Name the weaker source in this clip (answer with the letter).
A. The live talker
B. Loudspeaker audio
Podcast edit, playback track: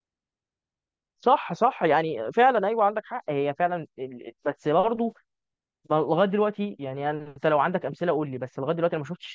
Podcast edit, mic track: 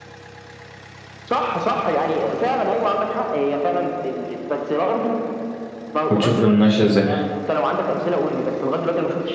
B